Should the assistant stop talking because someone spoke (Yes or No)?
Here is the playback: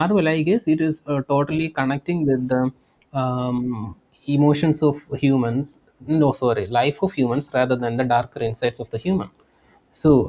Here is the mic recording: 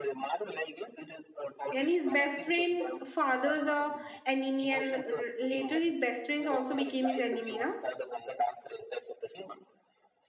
Yes